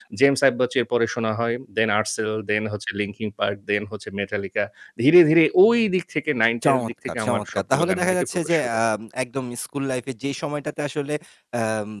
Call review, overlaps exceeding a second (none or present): present